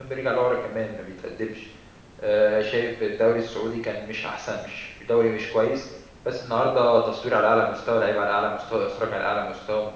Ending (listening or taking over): listening